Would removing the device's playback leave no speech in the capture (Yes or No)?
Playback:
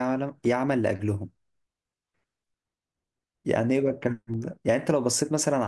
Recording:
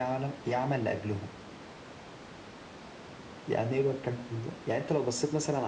Yes